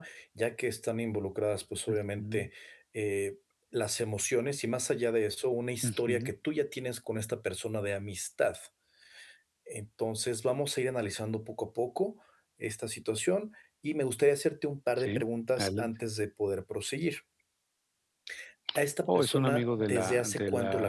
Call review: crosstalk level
present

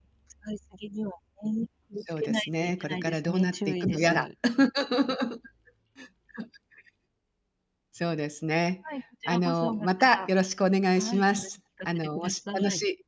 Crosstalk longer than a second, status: present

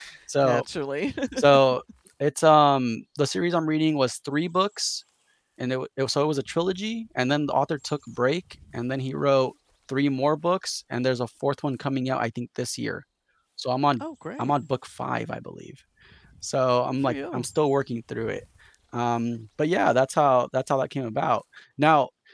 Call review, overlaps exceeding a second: none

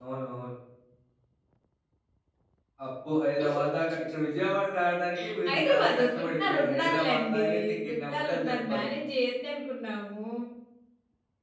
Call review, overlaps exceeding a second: present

